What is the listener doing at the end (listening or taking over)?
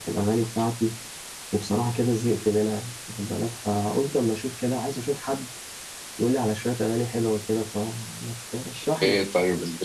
taking over